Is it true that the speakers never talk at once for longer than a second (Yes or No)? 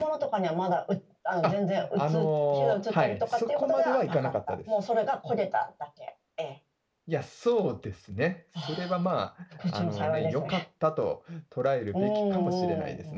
No